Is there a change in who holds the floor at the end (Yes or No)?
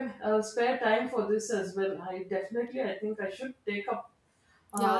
Yes